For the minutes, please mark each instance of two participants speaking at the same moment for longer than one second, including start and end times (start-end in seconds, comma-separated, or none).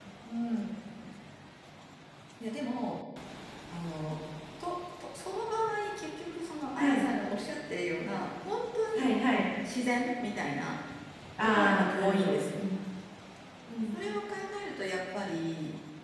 11.4-12.6